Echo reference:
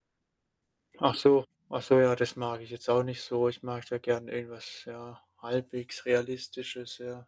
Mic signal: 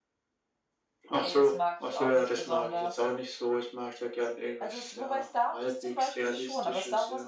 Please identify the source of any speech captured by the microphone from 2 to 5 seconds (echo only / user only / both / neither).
both